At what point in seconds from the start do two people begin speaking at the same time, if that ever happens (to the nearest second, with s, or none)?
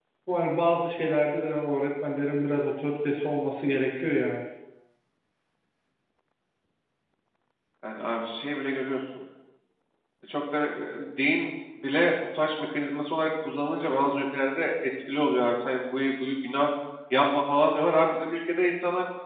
none